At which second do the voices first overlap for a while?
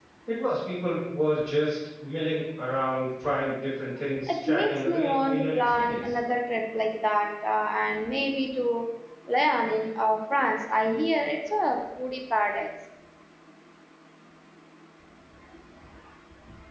4.3 s

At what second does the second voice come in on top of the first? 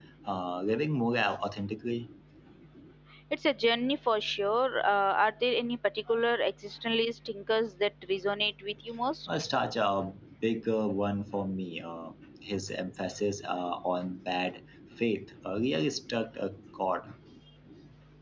none

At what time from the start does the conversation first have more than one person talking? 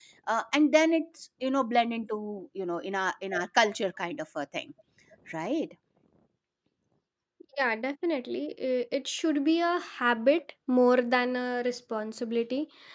none

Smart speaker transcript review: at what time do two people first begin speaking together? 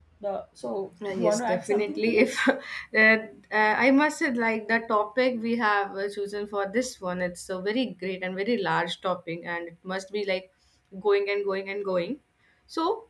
1.1 s

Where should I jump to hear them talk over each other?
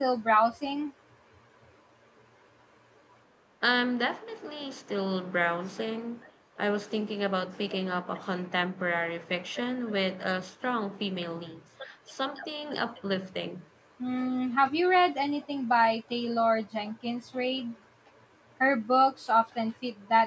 none

